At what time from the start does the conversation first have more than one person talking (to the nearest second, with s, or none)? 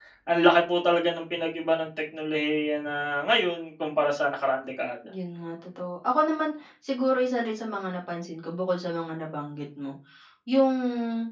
none